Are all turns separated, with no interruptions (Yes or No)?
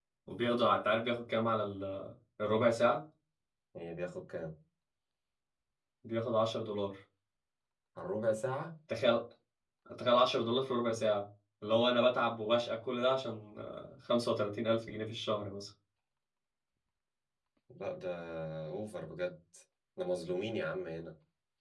Yes